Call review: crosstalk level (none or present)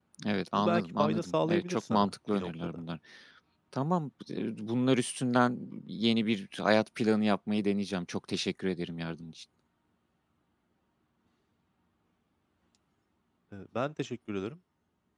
present